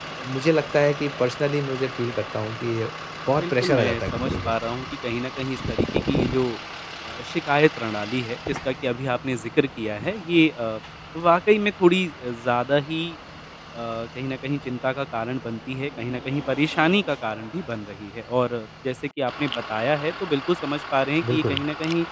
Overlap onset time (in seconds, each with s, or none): 3.3 s